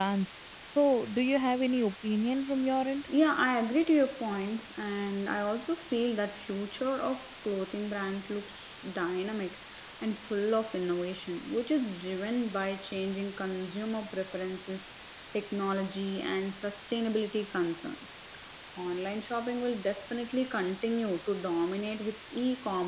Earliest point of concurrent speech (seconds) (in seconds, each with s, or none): none